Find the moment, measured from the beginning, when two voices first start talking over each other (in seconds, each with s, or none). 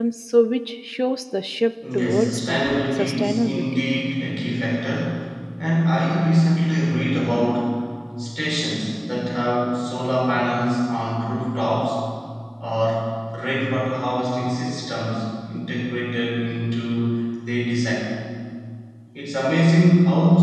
1.8 s